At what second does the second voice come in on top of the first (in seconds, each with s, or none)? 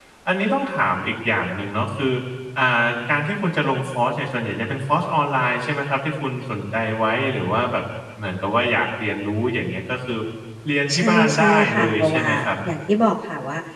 10.9 s